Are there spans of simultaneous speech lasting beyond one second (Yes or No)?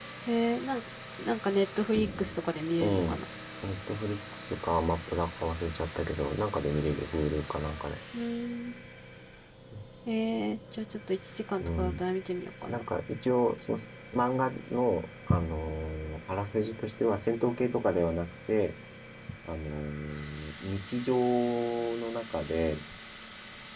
No